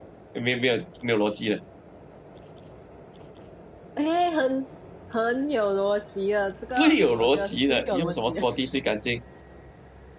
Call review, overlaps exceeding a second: present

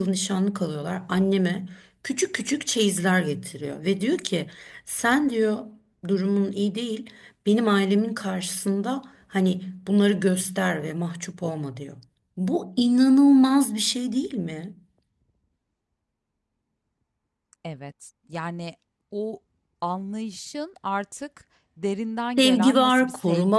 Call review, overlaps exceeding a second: present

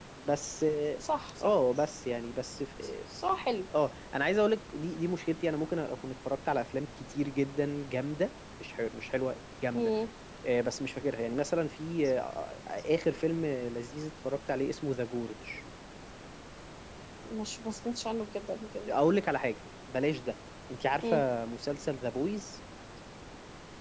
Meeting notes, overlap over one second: none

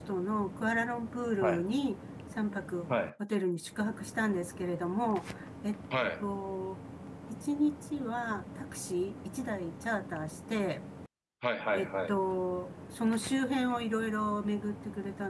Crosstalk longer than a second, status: none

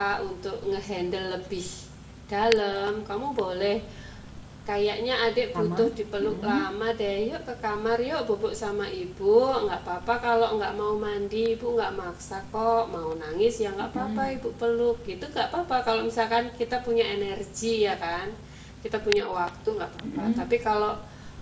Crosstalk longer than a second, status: none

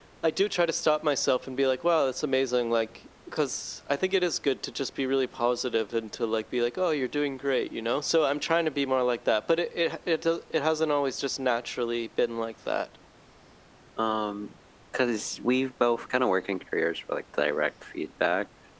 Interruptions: none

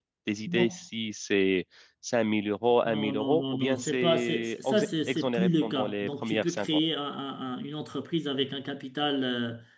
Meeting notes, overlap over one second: present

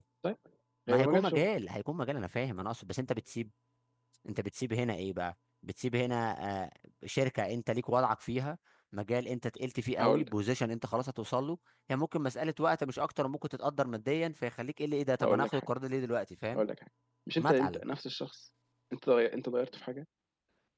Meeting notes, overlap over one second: none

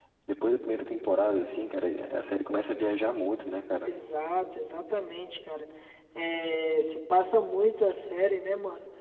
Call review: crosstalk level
none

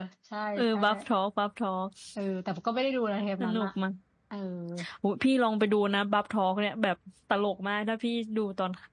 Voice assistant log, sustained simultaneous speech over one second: none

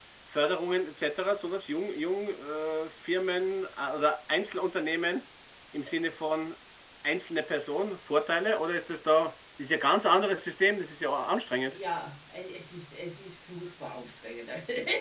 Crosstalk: none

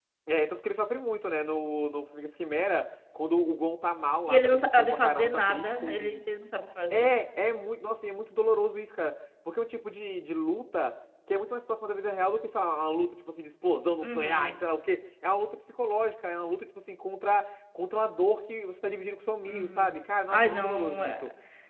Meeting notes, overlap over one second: present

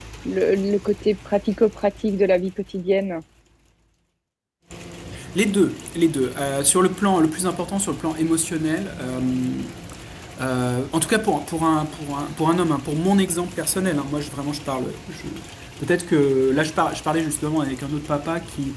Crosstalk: none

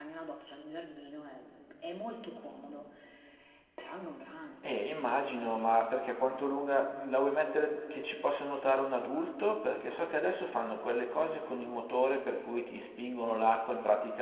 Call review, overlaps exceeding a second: none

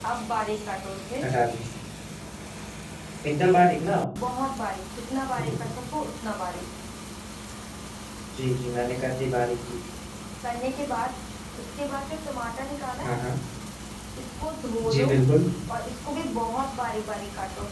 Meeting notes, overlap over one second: none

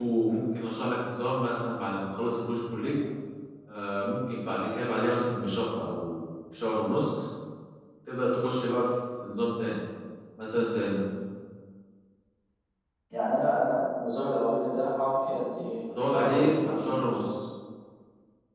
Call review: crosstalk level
present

